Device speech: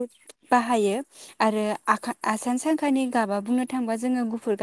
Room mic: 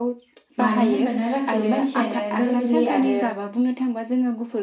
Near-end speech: present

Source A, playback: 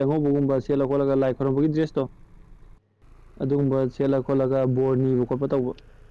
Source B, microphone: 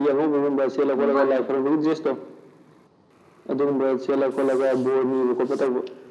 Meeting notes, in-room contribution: present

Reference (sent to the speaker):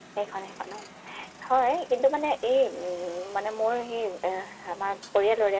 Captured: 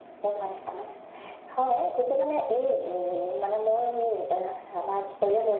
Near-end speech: none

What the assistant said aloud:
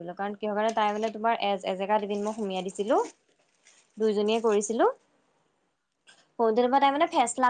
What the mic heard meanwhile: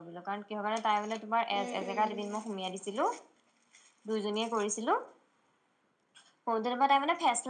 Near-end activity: present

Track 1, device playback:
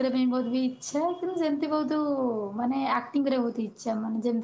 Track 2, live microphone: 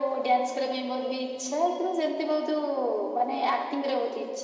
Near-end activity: none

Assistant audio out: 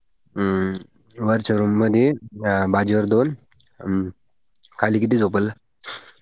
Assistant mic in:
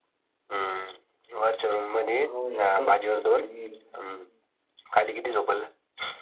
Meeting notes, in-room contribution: present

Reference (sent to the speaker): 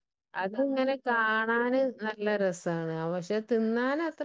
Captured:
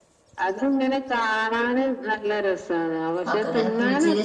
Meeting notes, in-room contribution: present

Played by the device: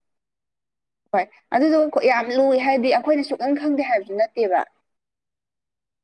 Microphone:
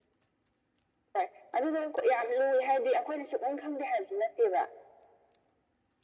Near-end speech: none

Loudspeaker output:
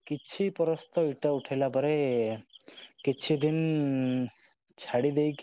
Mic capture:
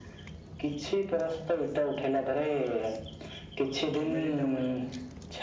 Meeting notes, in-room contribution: present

